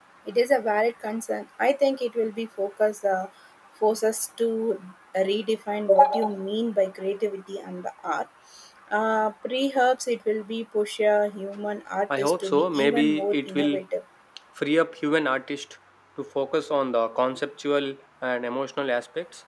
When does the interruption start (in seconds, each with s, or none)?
12.1 s